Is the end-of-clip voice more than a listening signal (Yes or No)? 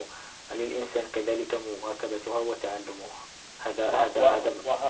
Yes